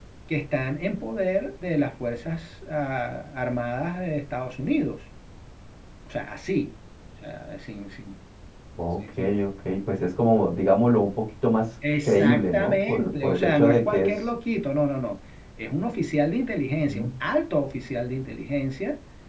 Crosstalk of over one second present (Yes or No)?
Yes